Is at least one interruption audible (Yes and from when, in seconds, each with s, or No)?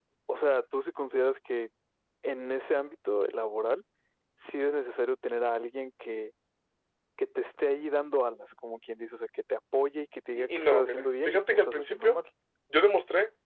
Yes, from 10.4 s